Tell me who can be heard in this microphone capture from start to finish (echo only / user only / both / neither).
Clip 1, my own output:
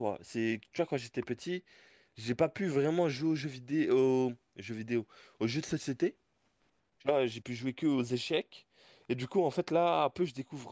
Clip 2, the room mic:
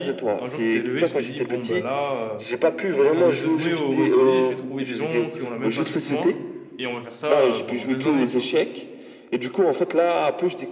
both